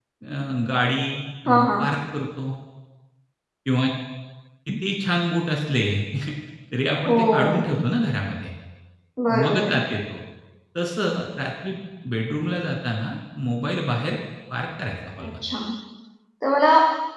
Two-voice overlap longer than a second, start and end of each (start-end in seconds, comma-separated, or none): none